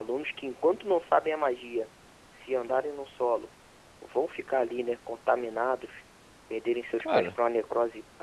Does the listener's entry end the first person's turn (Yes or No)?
No